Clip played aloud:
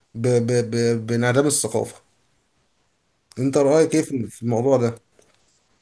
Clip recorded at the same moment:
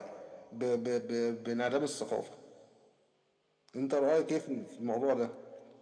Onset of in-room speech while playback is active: none

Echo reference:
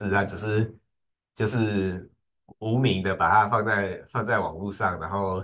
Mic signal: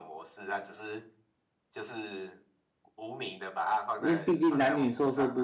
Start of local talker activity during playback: 4.0 s

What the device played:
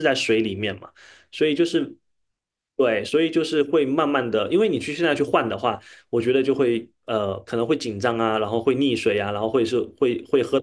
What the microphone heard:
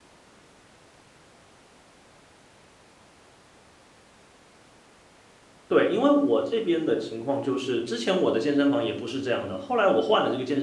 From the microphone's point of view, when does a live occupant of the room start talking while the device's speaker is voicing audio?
5.7 s

